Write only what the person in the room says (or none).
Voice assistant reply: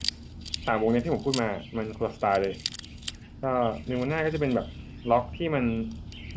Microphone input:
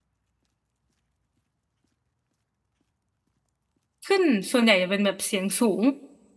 ขึ้นส่วนใหญ่จะเป็นแบบเสียงสูง